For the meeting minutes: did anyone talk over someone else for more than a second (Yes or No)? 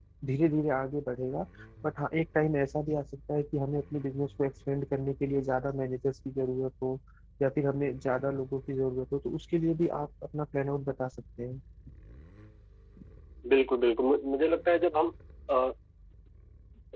No